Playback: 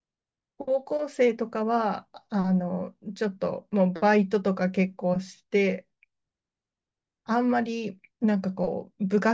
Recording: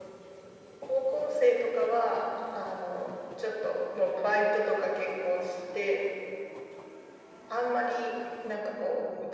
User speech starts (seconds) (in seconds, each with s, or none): none